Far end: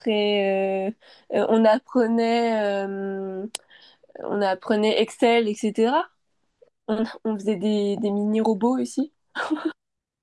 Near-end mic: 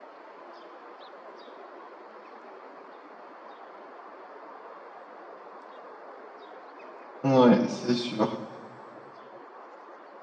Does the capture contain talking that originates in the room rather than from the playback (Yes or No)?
Yes